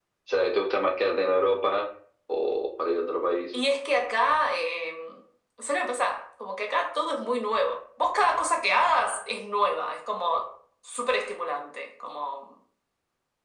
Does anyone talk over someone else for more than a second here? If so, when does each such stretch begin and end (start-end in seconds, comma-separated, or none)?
none